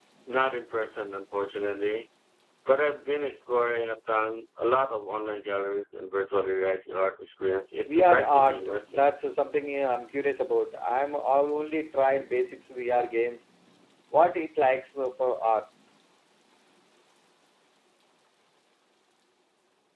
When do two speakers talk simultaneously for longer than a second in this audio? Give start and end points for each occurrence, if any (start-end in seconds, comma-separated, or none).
7.8-9.1